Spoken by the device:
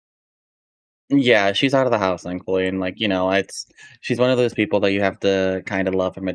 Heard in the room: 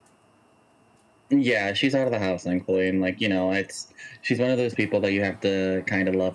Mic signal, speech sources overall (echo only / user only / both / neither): echo only